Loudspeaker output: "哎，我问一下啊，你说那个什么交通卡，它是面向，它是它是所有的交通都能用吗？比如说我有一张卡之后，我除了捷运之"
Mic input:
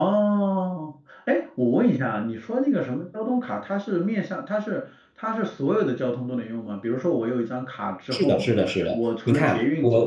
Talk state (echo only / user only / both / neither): both